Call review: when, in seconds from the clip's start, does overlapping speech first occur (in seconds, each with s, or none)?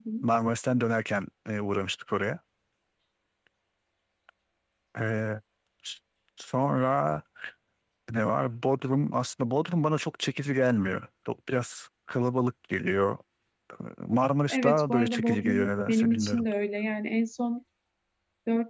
14.5 s